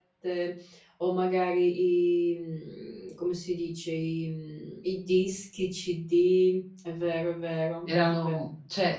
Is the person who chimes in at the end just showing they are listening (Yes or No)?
No